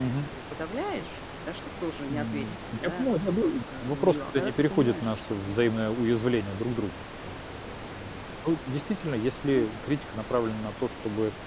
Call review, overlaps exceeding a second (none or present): present